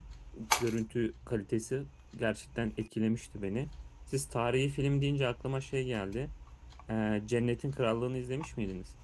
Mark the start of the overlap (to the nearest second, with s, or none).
none